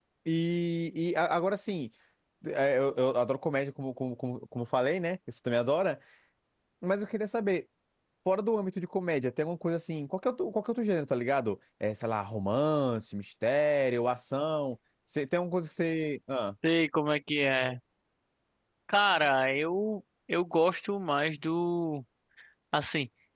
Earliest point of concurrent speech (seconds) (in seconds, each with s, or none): none